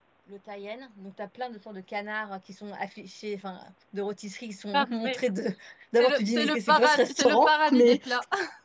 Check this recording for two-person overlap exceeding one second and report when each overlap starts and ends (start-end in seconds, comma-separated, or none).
6.0-8.0